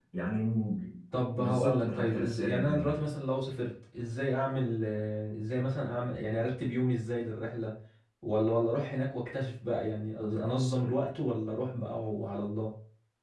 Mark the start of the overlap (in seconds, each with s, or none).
1.4 s